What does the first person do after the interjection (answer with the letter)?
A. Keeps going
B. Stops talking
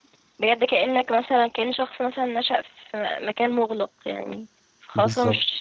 A